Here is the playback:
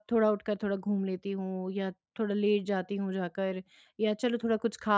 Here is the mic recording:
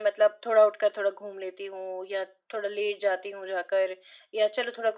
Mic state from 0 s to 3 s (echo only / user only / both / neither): echo only